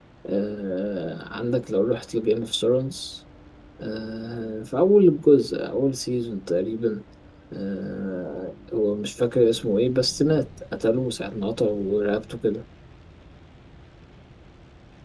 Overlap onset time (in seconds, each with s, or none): none